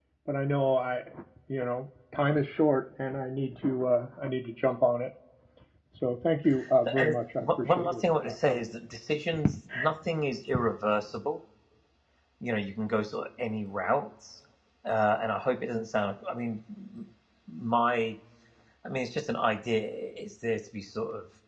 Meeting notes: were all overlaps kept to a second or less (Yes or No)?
No